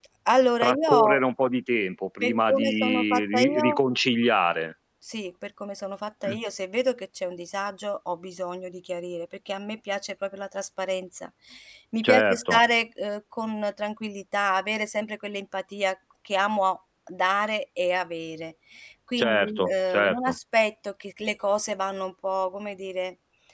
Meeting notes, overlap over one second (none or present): present